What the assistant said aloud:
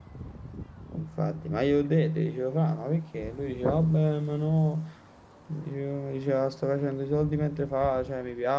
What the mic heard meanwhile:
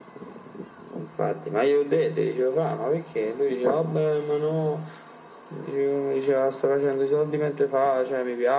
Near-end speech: none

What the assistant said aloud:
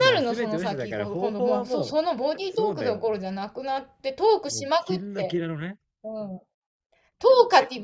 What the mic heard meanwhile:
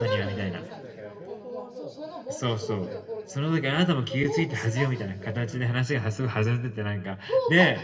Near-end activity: present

